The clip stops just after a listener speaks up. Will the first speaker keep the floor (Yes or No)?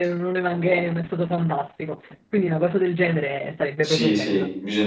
No